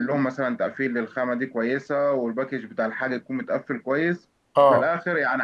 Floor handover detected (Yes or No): No